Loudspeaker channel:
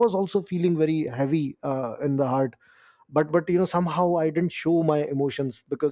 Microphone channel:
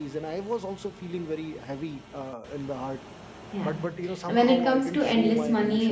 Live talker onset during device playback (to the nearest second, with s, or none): 3 s